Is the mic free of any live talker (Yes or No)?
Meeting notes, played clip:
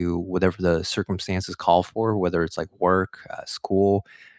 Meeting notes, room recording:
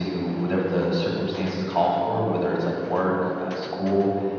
Yes